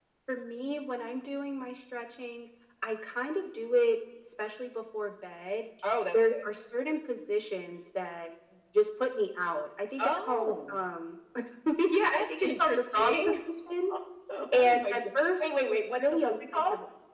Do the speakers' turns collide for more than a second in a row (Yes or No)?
Yes